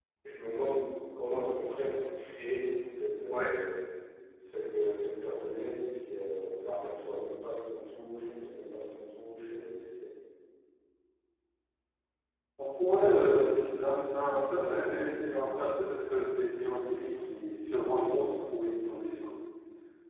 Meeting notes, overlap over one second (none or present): none